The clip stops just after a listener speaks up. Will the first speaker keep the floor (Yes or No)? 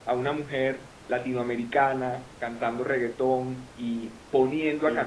Yes